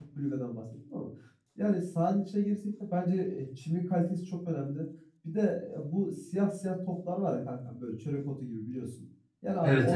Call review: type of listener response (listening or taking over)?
listening